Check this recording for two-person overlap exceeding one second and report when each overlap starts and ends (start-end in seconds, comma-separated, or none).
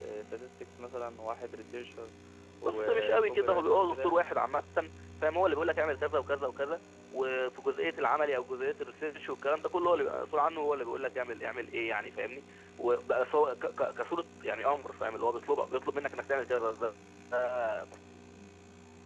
2.6-4.2